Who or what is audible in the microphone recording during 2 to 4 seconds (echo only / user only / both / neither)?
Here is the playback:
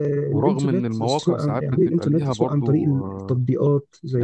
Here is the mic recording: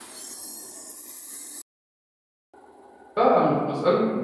user only